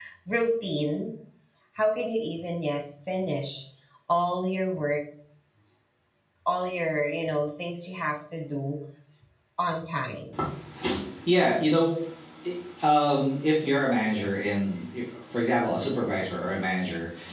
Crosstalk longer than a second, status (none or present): none